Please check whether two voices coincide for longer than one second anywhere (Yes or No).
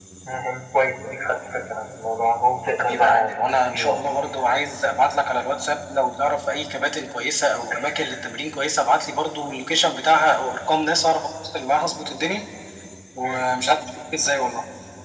Yes